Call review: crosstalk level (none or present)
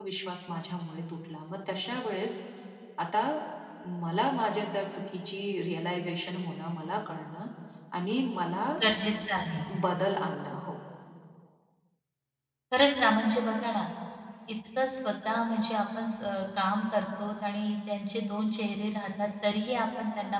none